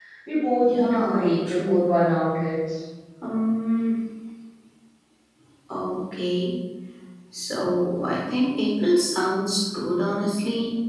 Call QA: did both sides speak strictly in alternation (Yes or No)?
No